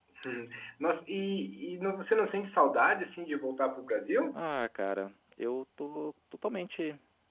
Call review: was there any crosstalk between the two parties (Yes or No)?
No